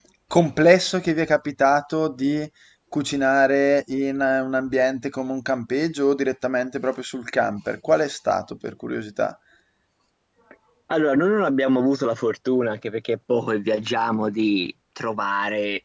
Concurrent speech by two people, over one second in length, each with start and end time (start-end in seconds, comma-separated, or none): none